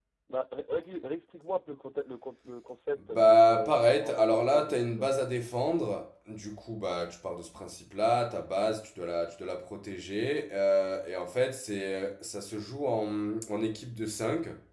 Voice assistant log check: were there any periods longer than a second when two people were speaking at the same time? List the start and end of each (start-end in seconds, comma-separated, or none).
3.1-5.1